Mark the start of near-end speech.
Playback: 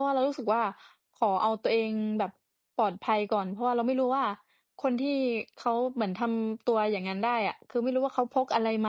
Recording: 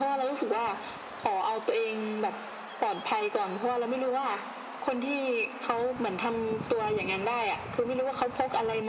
none

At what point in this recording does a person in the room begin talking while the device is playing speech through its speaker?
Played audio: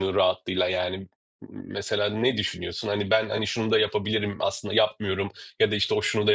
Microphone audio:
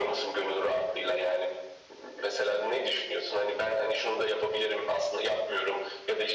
none

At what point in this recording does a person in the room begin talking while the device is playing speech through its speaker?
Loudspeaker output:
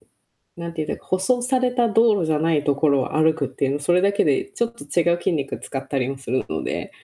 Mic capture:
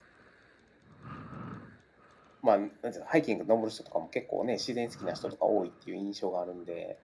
2.4 s

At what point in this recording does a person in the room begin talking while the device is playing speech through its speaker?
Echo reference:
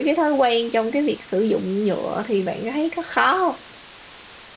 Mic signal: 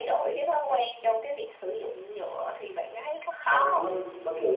3.4 s

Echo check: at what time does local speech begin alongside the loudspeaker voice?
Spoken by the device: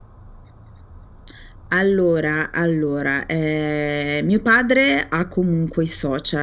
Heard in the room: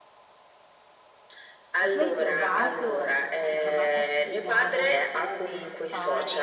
1.8 s

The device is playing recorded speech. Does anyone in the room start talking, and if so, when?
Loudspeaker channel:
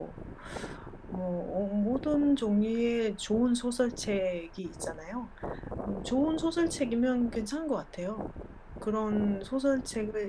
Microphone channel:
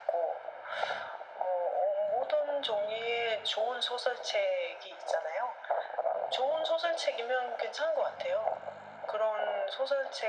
none

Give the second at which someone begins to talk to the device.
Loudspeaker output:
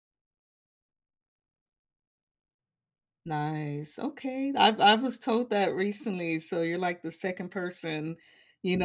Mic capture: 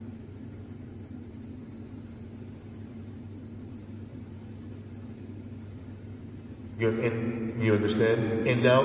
6.8 s

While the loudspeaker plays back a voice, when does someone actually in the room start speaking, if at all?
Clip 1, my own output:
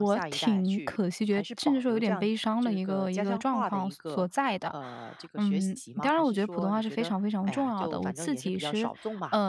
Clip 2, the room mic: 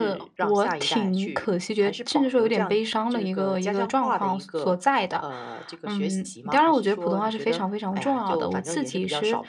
none

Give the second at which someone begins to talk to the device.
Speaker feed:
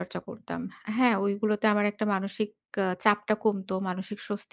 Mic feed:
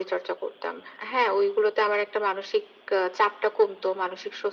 none

